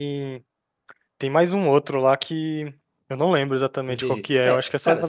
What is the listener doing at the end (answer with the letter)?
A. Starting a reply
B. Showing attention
A